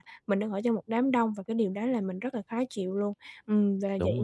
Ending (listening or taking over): listening